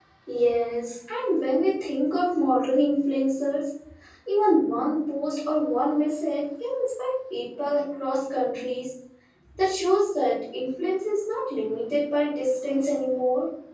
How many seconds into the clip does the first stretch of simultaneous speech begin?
none

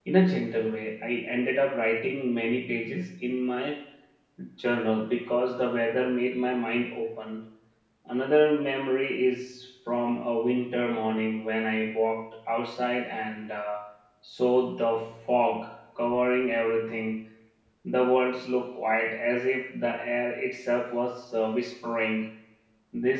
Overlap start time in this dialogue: none

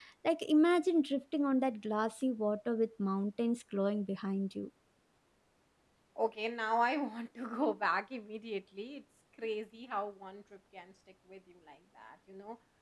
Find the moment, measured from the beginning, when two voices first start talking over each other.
none

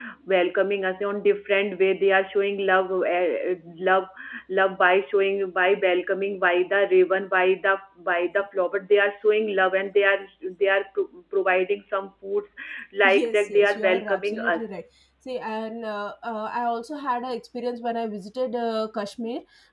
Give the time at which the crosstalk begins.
13.1 s

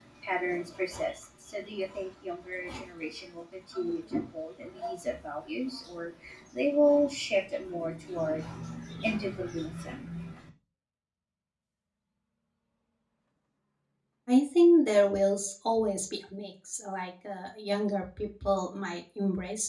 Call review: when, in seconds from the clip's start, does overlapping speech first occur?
none

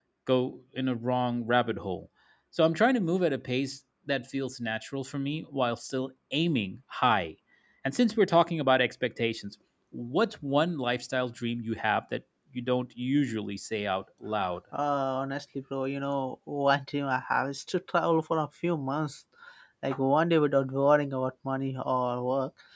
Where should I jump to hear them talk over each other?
none

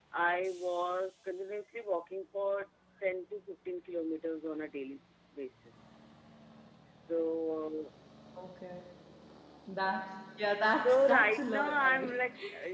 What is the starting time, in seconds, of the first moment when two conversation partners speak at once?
10.8 s

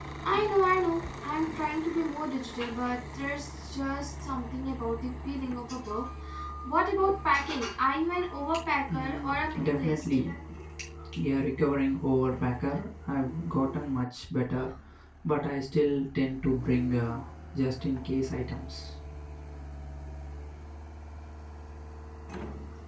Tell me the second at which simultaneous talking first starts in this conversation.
8.9 s

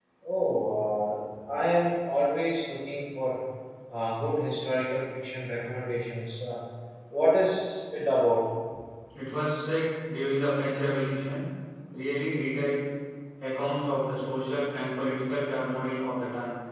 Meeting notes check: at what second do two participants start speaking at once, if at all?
none

